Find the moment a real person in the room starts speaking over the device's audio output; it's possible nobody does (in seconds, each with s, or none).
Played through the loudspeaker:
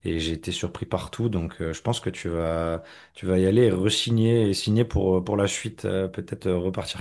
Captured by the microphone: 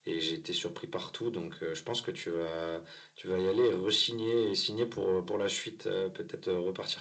none